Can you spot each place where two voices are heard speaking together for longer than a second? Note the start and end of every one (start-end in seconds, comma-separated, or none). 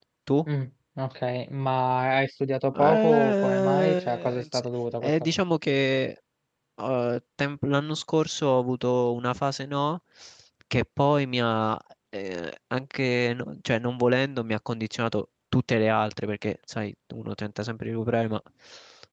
2.7-4.6